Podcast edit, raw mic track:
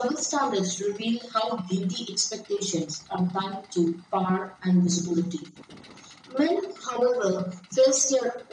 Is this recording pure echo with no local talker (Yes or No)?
Yes